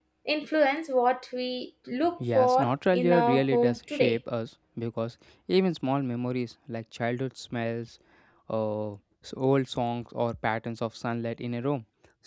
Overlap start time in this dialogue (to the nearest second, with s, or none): 2 s